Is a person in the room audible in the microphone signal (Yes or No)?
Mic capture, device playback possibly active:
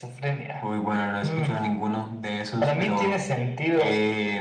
No